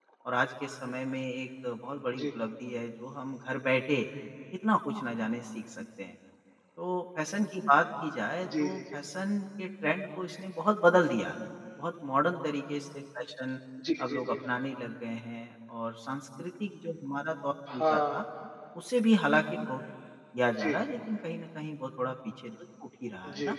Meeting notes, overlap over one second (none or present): none